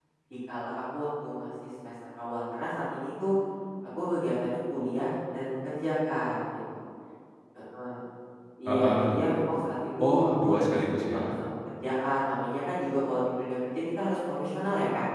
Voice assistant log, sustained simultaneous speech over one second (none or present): present